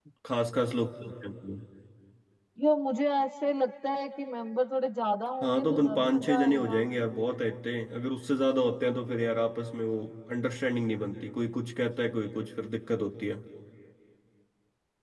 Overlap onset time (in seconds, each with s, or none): 5.4 s